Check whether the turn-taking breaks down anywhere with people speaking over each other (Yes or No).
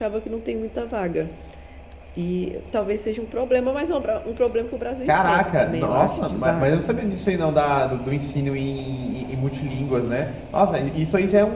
Yes